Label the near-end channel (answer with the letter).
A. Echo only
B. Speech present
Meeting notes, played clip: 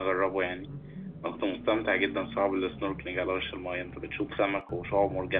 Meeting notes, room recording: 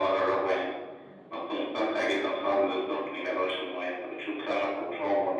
A